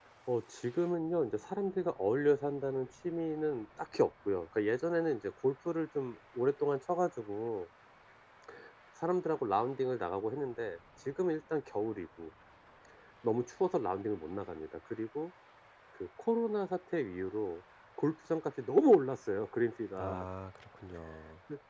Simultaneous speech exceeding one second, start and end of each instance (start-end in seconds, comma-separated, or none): none